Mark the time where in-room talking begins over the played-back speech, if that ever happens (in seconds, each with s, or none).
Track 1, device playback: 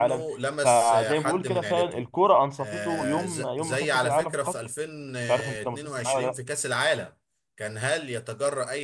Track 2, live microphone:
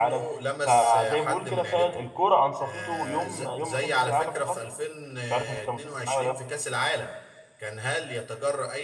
none